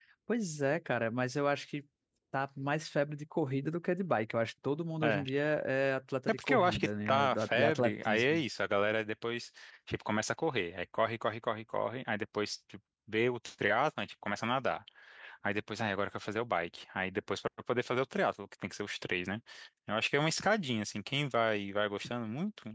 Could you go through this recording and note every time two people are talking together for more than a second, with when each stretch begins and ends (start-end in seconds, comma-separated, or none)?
6.3-8.4